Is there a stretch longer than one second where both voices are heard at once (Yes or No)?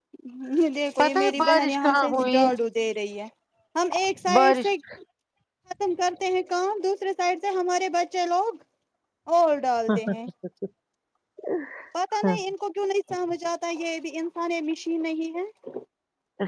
Yes